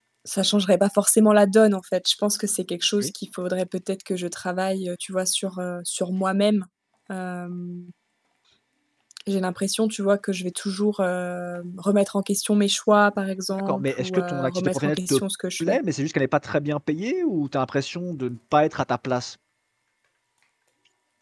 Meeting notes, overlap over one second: present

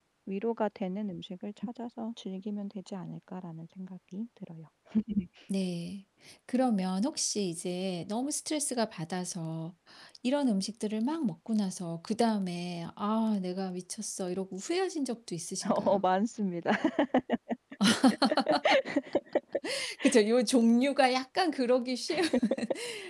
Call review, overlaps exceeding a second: none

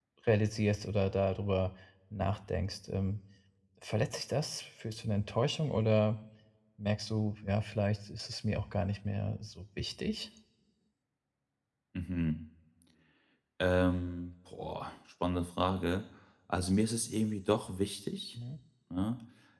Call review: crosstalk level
none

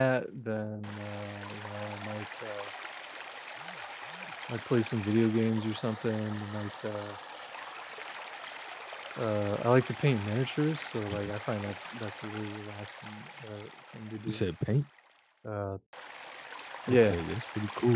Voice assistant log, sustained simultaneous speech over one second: none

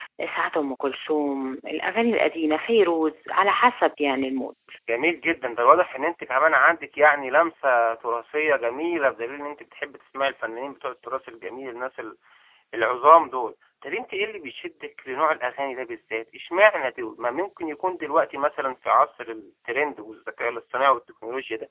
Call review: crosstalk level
none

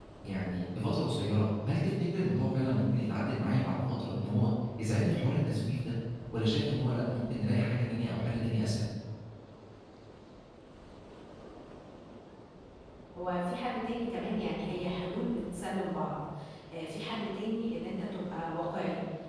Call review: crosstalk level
none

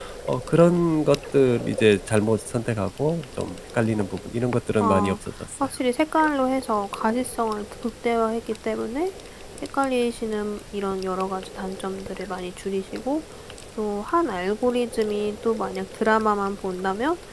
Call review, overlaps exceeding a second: none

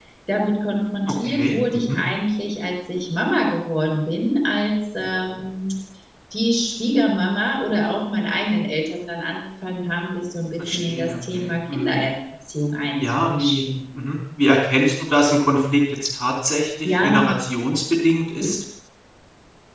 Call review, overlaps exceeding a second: present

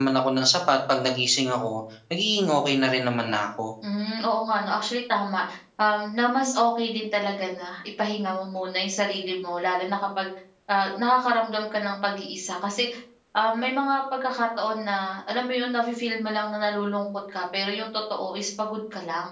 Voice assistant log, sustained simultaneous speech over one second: none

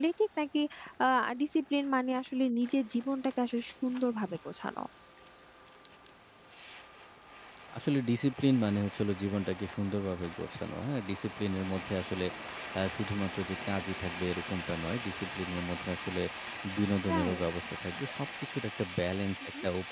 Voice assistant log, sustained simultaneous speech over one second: none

